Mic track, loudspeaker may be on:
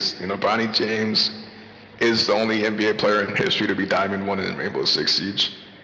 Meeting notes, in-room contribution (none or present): none